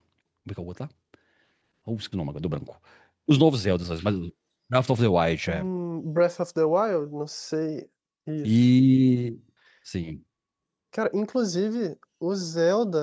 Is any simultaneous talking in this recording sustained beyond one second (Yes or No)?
No